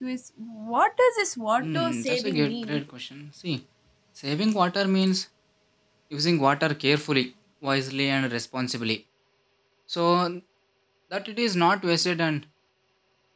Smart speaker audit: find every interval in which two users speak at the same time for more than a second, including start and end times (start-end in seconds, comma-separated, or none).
1.6-2.8